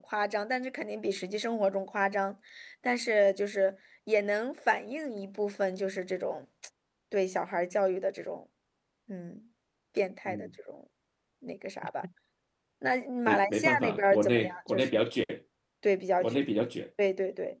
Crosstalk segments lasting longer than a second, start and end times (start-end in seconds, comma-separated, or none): 13.3-15.0